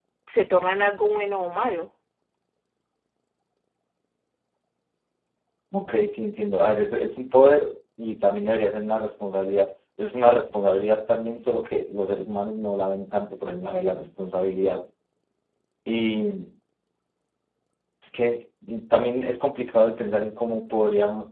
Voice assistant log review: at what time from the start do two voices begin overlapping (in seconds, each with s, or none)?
none